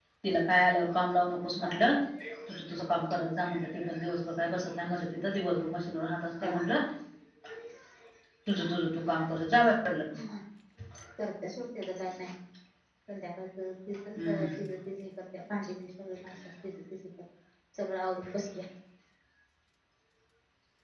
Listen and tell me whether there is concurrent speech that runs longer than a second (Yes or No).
No